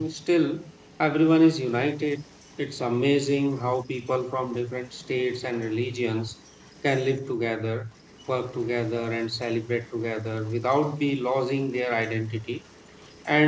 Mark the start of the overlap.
none

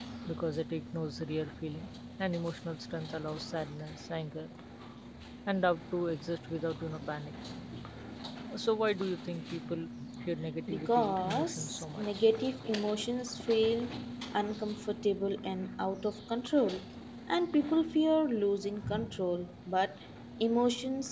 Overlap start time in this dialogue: 10.7 s

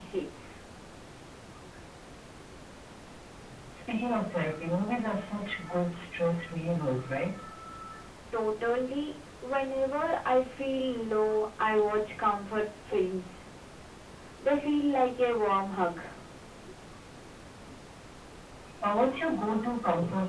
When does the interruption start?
none

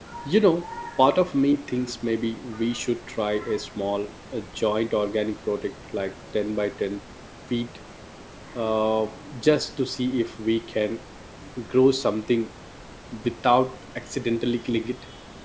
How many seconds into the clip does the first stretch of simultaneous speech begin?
none

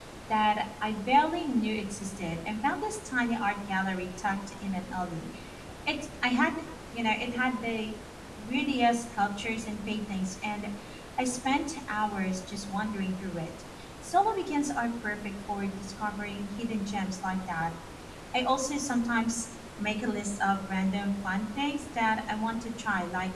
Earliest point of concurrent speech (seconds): none

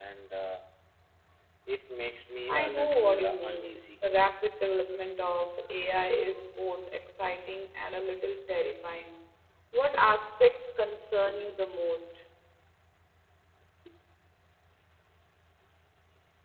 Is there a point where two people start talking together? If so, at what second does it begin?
2.5 s

